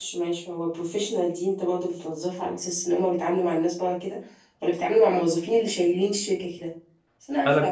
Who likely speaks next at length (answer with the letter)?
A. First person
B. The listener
A